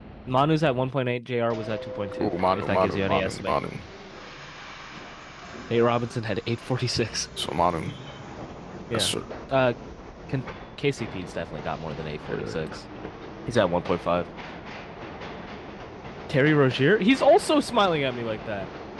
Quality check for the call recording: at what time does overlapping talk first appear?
2 s

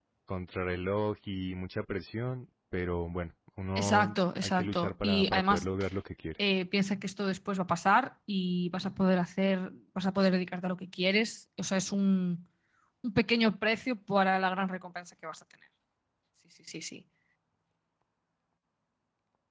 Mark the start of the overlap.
4 s

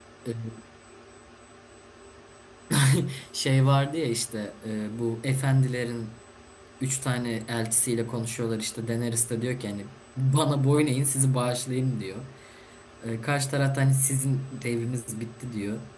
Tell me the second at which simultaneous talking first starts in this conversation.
none

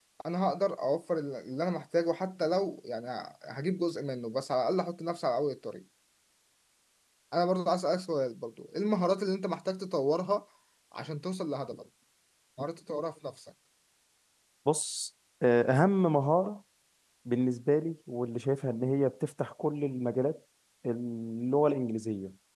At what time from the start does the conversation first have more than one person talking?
none

